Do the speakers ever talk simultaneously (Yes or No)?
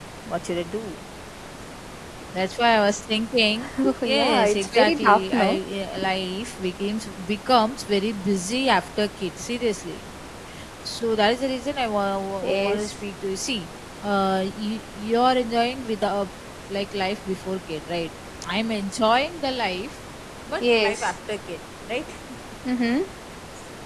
Yes